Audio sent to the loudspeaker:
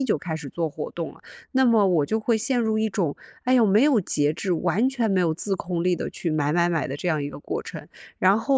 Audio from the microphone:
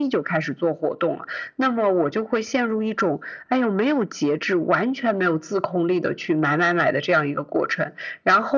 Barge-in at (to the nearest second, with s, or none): none